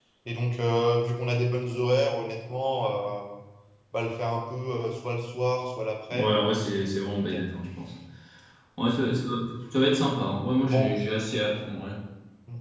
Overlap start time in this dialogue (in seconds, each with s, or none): 6.1 s